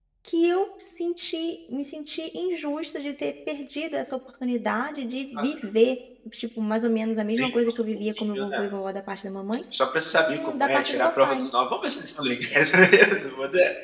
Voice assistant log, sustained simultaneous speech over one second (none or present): present